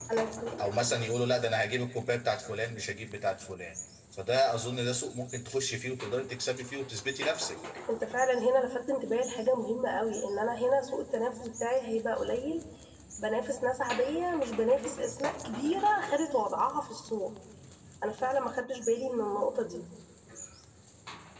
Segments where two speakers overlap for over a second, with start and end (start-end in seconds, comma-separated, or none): none